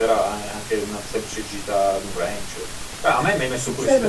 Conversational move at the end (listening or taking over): listening